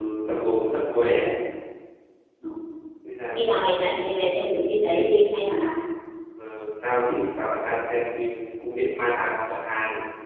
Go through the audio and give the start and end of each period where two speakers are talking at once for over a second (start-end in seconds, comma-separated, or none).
none